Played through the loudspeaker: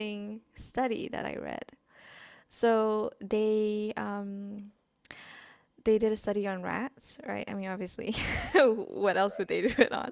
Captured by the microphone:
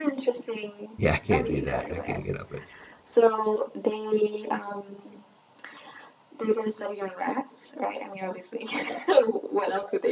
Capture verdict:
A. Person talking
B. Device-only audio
A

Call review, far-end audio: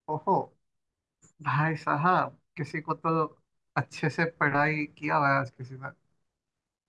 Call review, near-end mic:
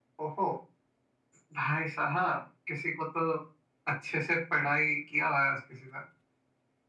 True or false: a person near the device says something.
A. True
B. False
B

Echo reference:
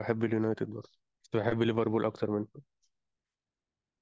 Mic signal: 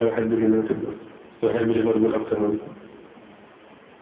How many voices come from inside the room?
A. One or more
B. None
B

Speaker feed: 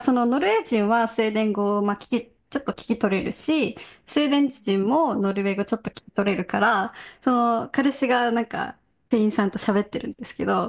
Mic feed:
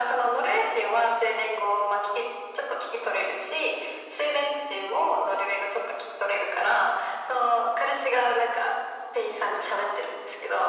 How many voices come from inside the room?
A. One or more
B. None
B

